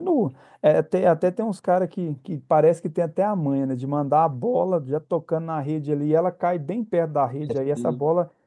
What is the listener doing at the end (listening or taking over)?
listening